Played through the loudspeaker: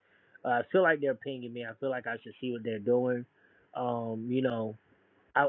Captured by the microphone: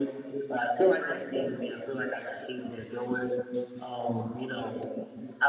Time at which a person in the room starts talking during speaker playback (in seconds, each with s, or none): none